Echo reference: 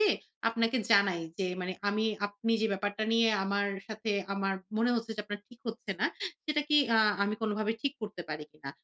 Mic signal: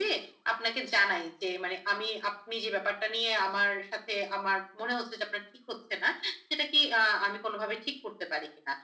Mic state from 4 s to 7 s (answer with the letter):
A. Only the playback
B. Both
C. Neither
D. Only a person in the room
A